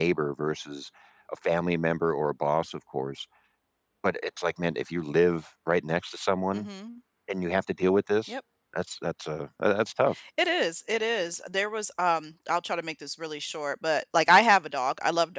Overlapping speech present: No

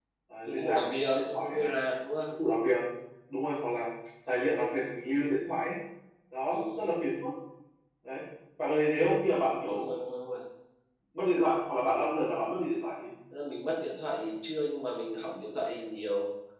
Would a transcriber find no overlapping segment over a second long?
No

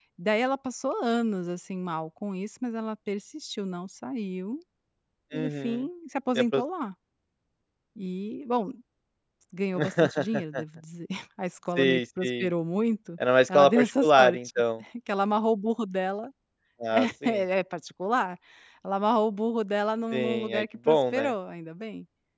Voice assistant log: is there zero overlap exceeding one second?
No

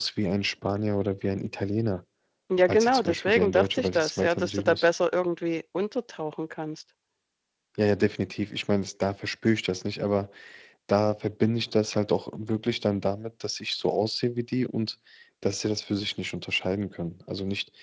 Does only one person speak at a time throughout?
No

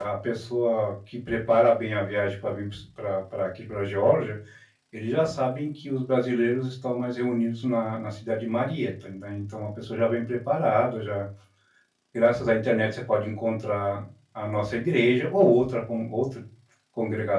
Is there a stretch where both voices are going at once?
No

